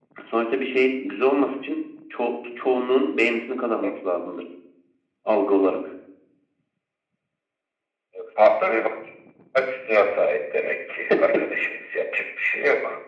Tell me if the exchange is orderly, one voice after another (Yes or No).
Yes